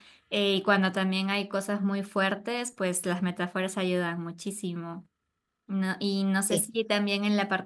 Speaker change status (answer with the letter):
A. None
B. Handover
A